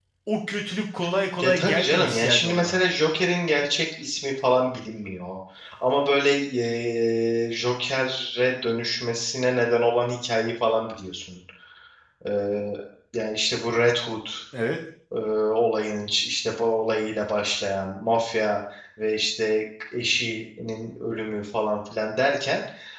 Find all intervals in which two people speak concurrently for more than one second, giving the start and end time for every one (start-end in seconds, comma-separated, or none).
1.4-2.8